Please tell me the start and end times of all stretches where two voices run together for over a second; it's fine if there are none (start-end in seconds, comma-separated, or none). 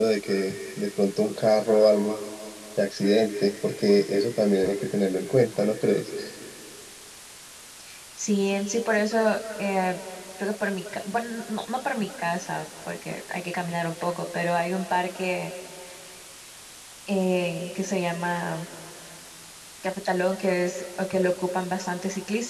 none